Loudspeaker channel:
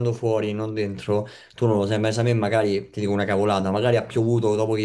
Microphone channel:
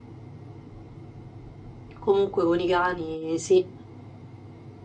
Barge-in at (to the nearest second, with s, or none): 2 s